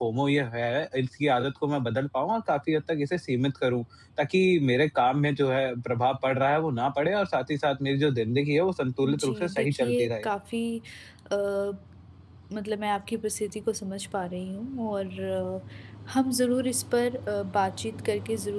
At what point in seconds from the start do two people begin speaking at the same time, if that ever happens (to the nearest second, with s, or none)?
9 s